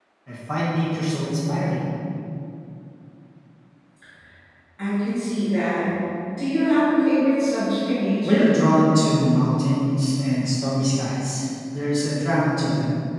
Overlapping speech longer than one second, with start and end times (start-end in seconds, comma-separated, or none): none